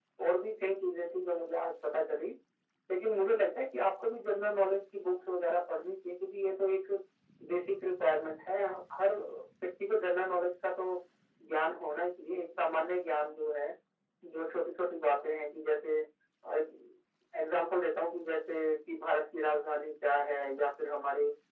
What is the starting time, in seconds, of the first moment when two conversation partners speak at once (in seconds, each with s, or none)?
none